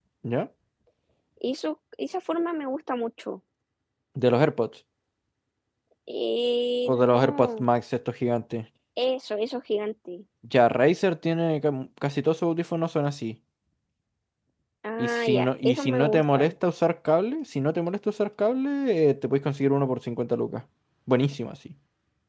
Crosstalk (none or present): present